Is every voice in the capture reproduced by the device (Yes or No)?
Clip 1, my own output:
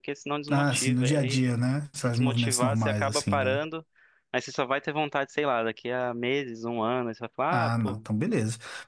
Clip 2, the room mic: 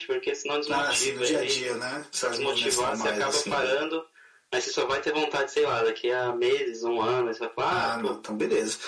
Yes